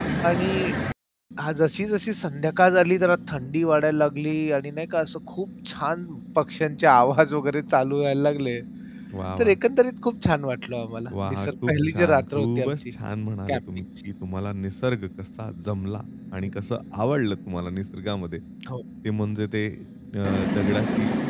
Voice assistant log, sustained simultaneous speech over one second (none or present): present